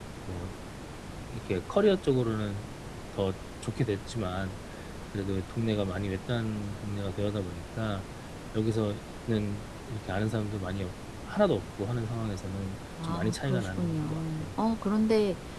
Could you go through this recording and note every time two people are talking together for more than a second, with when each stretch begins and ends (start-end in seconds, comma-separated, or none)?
13.0-14.5